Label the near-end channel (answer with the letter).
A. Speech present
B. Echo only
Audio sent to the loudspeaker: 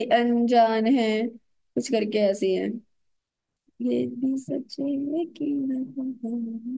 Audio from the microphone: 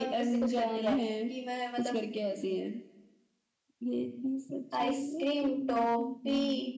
A